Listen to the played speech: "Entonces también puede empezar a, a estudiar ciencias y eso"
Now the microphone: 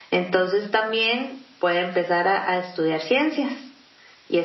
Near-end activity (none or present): none